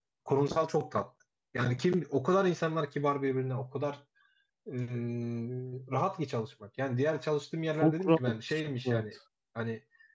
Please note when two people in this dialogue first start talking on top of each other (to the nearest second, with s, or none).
8 s